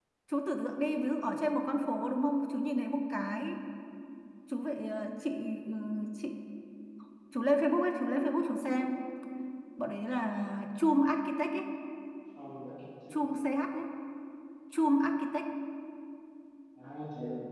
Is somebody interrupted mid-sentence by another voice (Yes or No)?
No